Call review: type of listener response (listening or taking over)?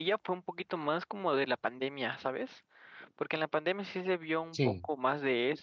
listening